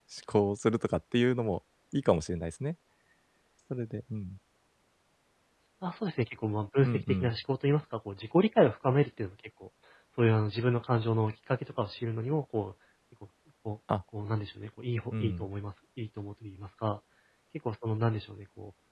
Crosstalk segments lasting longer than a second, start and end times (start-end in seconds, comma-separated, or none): none